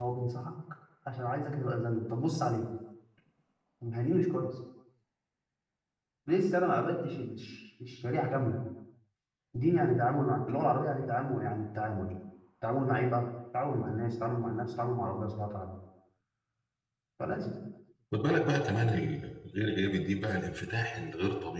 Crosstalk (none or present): none